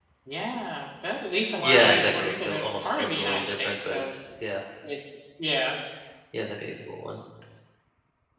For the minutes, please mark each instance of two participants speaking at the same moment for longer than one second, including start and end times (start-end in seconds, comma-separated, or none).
1.6-4.1